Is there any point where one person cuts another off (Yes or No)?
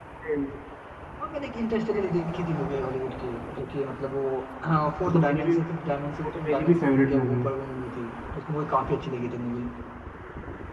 Yes